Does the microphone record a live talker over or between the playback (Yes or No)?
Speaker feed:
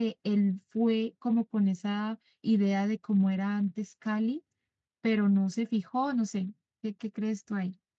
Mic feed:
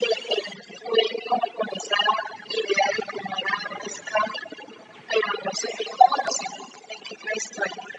No